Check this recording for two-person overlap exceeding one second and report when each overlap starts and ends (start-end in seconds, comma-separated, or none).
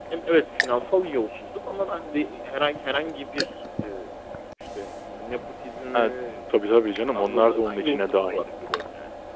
6.9-8.4